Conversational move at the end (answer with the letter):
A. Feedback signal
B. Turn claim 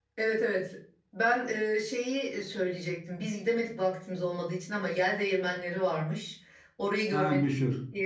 A